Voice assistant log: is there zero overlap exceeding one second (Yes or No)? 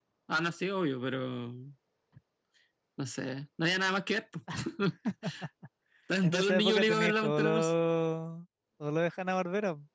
No